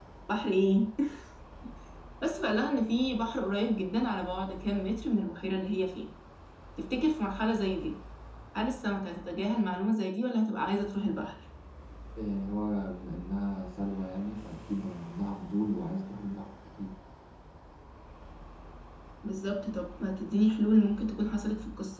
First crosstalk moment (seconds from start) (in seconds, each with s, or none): none